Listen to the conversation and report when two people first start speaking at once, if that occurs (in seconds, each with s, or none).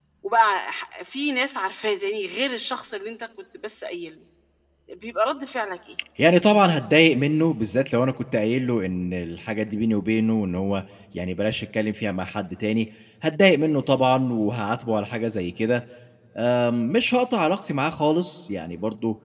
none